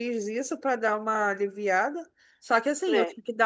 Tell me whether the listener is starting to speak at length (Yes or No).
No